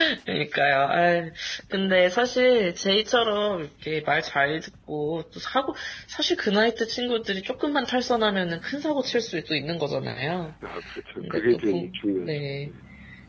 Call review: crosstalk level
present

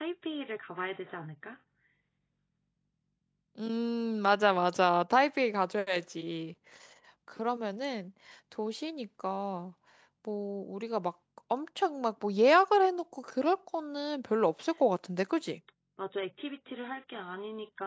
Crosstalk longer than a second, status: none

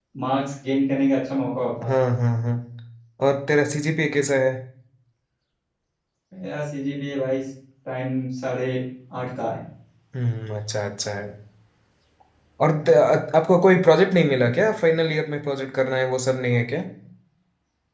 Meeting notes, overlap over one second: none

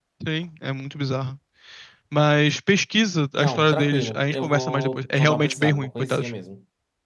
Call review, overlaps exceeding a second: present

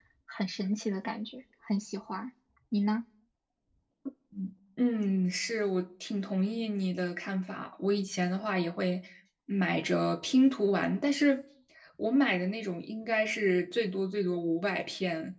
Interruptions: none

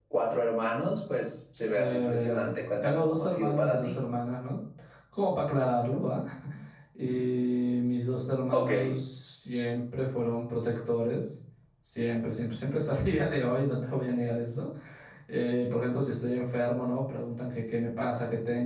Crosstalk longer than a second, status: present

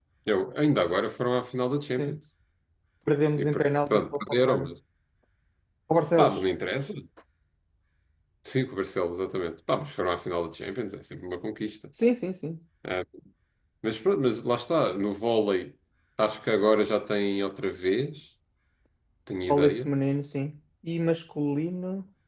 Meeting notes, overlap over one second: present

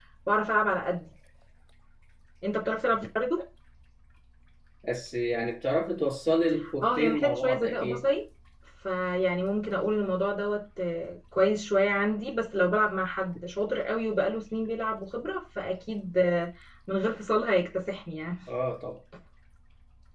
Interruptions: present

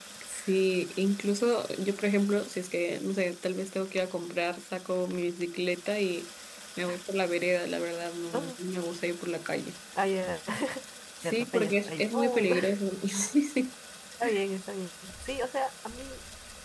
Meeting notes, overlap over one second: present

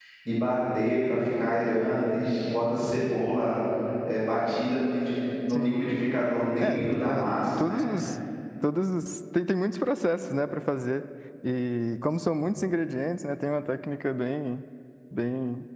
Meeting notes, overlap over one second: present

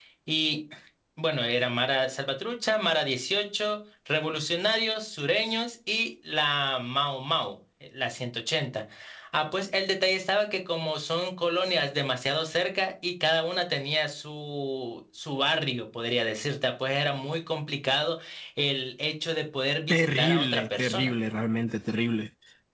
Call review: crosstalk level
present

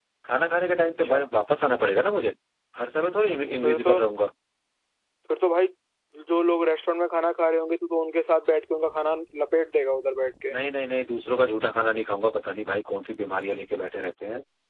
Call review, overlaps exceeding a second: none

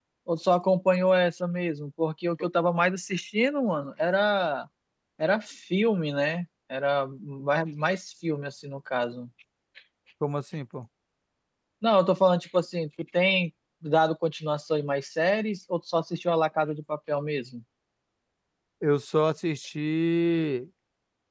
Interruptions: none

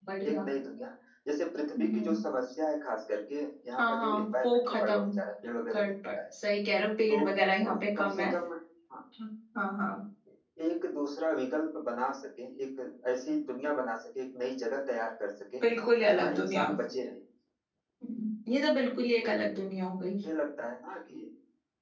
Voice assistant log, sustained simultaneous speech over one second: present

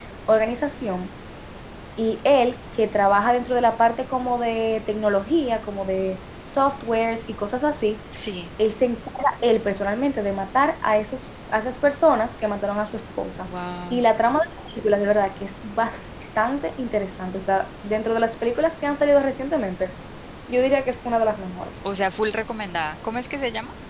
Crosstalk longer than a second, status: none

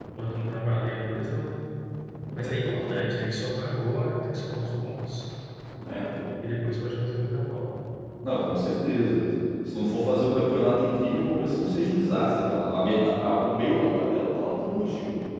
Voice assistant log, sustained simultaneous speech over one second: none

